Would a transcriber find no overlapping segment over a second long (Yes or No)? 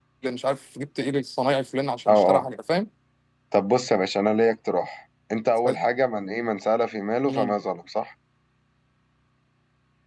Yes